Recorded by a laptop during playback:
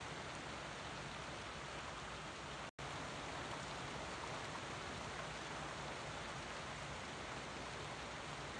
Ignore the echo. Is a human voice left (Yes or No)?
No